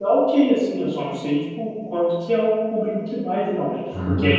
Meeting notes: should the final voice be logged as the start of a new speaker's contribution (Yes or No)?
Yes